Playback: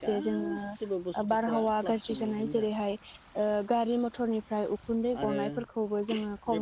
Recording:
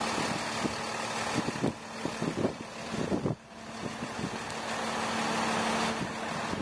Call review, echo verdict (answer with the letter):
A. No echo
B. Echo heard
A